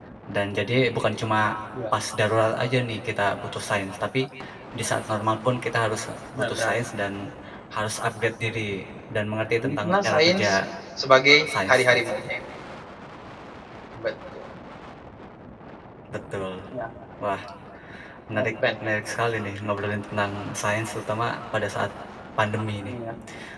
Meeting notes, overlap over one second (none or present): present